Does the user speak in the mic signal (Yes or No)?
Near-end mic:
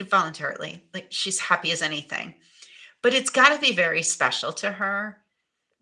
Yes